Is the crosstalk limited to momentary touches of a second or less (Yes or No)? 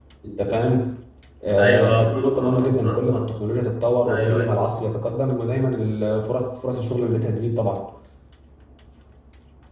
No